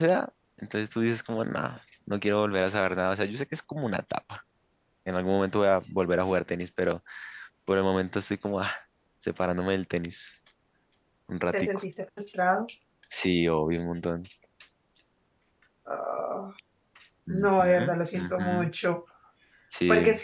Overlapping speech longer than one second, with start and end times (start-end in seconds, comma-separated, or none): 17.3-18.7